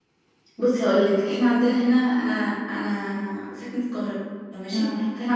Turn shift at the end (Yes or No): No